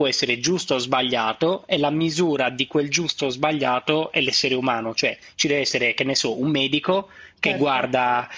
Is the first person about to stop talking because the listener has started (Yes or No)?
No